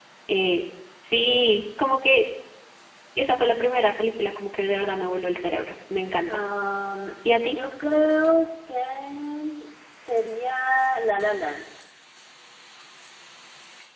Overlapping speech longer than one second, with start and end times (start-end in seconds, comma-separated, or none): none